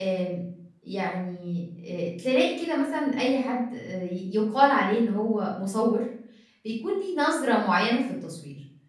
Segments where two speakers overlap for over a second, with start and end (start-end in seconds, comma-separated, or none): none